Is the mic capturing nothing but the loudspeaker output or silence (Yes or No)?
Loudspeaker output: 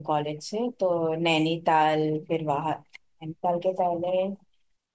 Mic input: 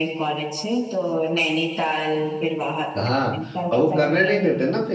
No